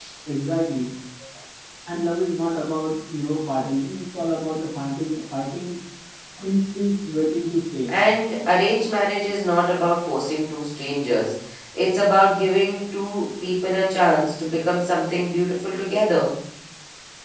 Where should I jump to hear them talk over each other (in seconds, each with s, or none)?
none